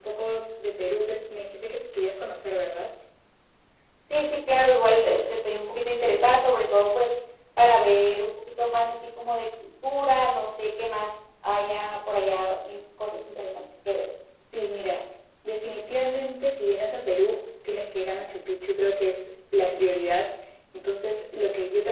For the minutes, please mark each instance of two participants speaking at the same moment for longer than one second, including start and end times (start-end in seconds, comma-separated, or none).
none